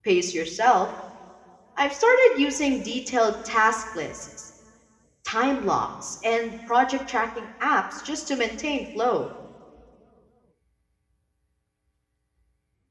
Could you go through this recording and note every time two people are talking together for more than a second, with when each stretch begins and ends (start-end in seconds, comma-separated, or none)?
none